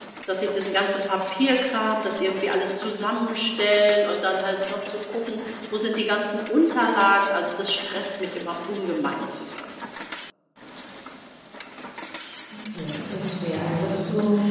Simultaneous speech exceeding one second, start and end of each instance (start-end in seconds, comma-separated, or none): none